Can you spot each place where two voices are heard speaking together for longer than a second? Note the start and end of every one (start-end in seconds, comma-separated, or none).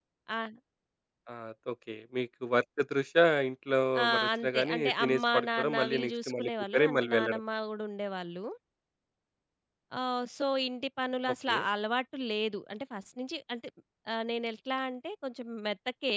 4.0-7.4